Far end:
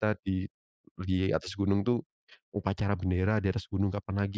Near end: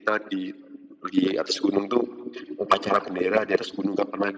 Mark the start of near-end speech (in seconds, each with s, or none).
none